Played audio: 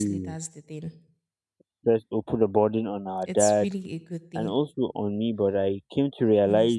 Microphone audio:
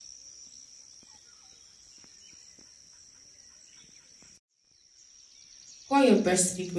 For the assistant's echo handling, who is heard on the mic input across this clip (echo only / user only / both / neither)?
user only